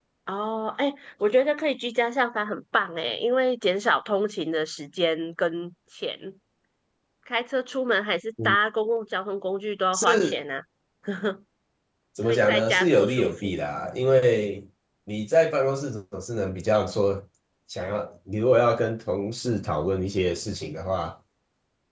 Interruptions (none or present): present